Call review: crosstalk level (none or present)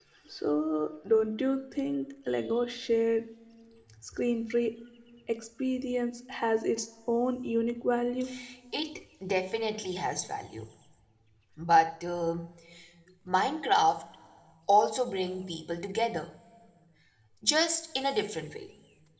none